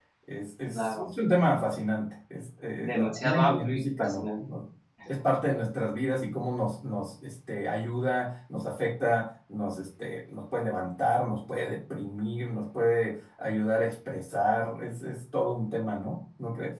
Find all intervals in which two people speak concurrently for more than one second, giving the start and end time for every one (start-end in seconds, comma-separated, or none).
2.8-4.2